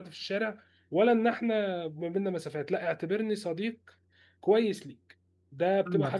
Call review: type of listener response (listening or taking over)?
taking over